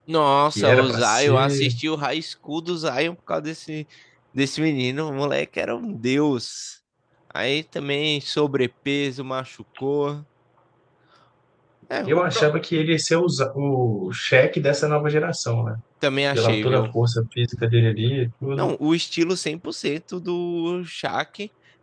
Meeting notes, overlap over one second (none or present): present